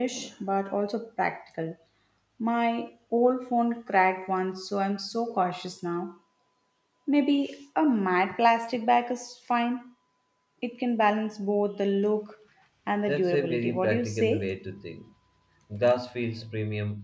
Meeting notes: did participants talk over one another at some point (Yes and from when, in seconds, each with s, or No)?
Yes, from 13.1 s